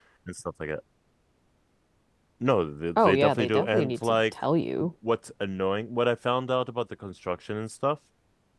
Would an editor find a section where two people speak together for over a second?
Yes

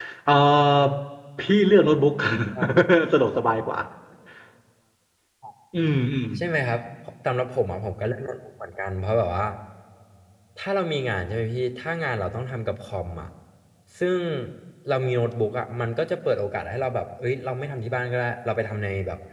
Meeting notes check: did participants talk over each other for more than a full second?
No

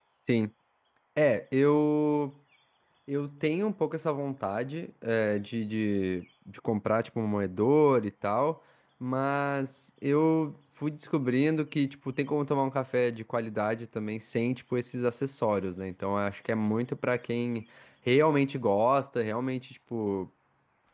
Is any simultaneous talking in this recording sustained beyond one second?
No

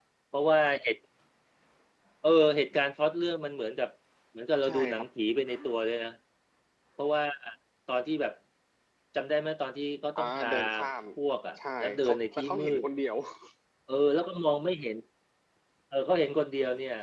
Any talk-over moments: Yes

